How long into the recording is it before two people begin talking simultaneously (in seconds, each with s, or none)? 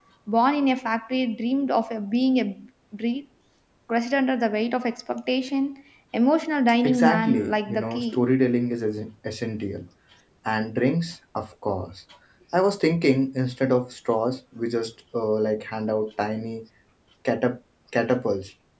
6.8 s